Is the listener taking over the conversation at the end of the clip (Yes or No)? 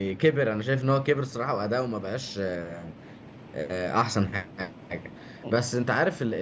No